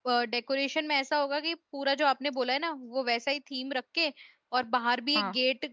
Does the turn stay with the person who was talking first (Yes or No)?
Yes